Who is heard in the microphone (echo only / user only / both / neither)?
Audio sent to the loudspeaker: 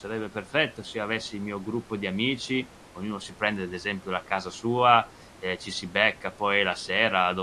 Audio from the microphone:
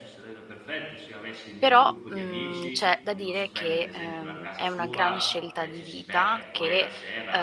both